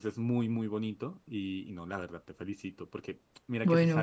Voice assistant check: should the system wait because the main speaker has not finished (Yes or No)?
Yes